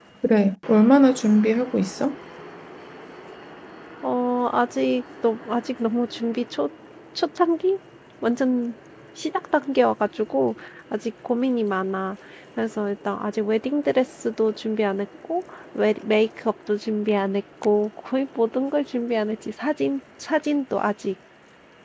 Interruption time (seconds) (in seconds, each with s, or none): none